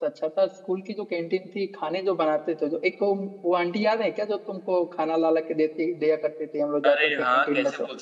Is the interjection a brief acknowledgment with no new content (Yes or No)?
No